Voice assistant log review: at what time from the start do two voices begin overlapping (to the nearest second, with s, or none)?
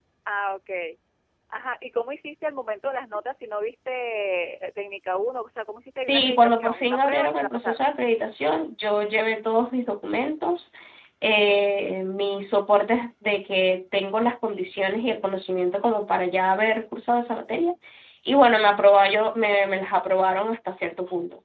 6 s